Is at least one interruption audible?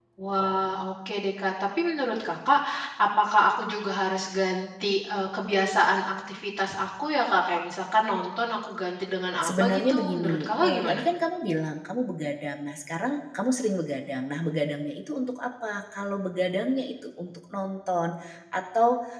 Yes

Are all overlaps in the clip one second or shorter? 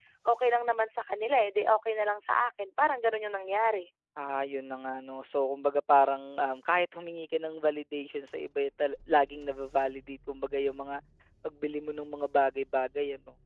Yes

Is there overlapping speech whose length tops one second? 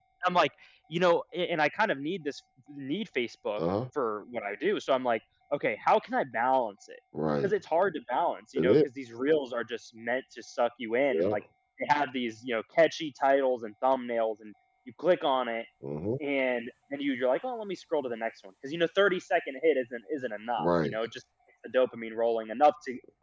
No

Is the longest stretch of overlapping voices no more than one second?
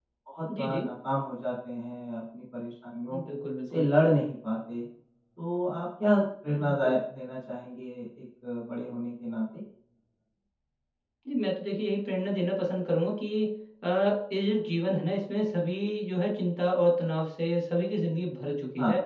Yes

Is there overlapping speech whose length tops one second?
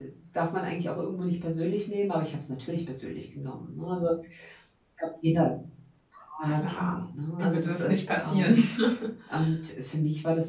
Yes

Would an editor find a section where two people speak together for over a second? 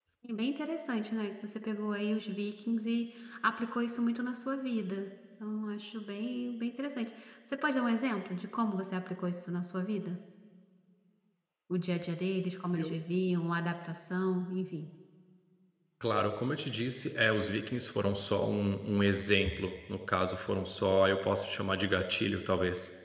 No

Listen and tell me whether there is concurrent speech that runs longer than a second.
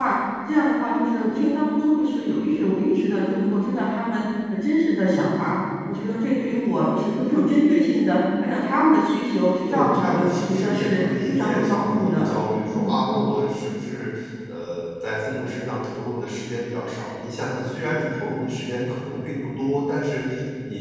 Yes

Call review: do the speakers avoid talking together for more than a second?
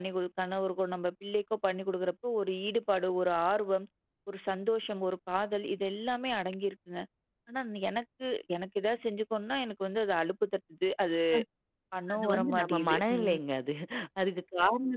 No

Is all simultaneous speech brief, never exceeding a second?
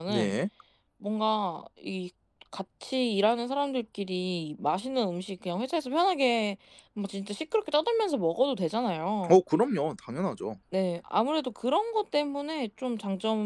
Yes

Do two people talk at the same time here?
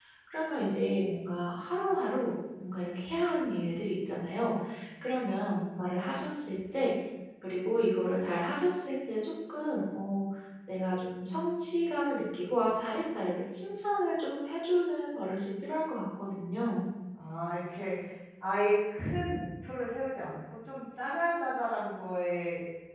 No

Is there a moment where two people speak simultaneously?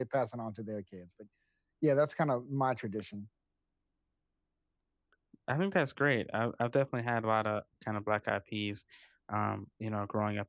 No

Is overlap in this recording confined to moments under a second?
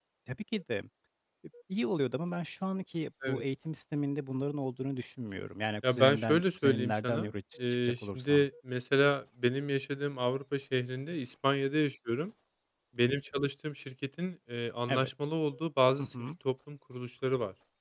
No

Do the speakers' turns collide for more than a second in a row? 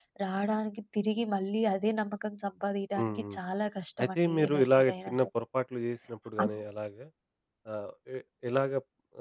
Yes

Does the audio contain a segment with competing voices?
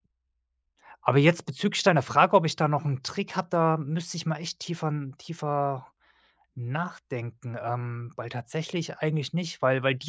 No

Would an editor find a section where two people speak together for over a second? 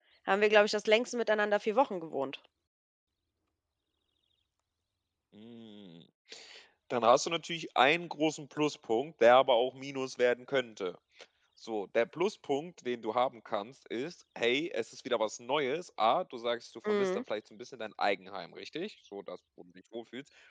No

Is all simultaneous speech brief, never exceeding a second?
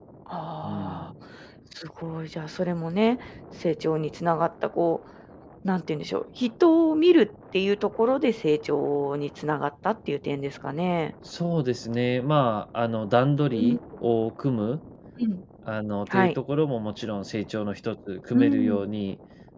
Yes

